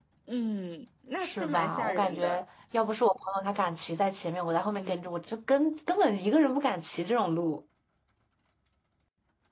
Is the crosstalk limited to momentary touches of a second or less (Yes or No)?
No